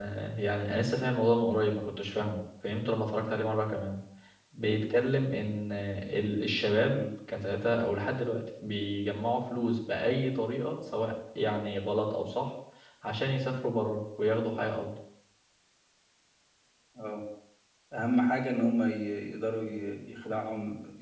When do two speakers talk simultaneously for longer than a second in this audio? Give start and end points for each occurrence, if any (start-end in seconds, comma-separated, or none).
none